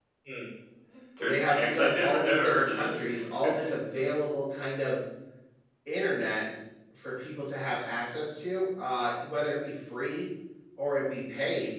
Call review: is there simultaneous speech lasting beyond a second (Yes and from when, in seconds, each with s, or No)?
Yes, from 1.3 s